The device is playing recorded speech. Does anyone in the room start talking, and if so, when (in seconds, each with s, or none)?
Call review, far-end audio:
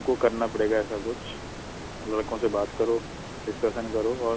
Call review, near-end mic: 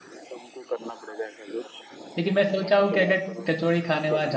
2.2 s